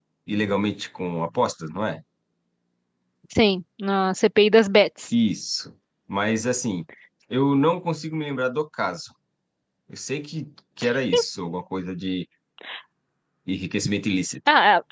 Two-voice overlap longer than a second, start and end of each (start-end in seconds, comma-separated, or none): none